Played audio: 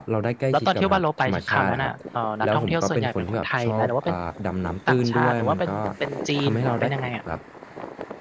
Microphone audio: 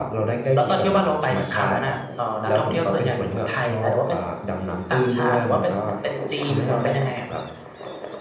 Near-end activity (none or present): none